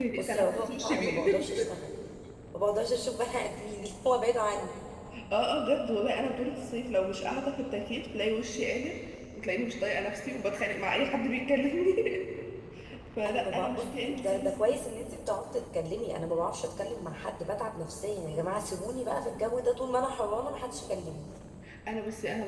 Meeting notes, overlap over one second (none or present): present